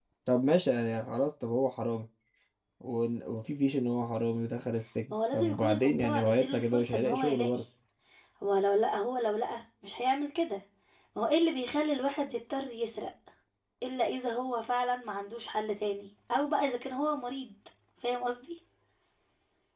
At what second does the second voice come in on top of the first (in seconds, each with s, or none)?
5.1 s